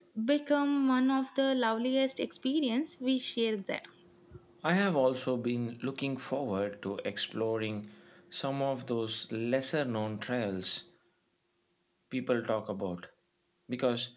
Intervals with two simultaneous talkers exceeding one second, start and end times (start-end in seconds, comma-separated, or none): none